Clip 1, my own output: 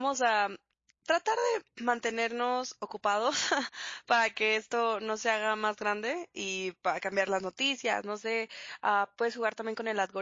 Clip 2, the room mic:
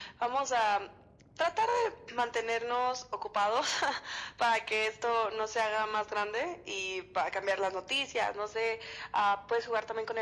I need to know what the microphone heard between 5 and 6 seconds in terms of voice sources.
echo only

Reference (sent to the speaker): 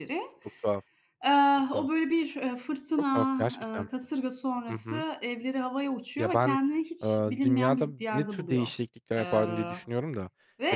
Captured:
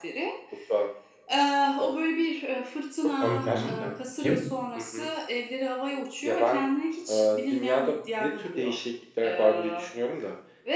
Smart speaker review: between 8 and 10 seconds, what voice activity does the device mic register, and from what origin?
echo only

